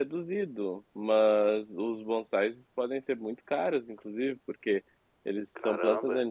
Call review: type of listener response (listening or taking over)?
listening